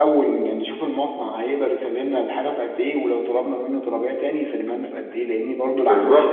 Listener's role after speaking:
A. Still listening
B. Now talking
B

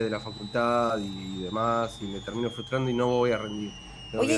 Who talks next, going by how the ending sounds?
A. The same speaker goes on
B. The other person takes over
B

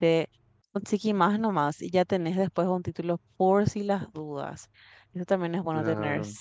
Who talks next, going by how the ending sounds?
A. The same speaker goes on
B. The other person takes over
A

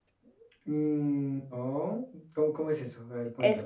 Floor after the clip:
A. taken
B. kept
A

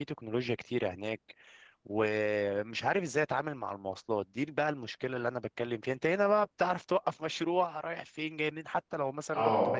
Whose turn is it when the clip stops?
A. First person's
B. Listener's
A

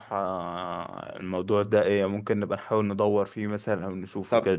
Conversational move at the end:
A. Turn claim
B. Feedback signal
A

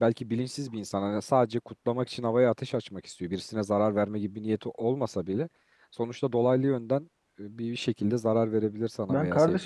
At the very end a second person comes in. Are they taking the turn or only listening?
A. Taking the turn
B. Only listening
A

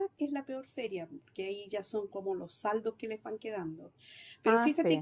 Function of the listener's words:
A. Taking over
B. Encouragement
B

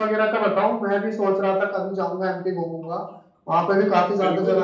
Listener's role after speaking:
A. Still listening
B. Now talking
B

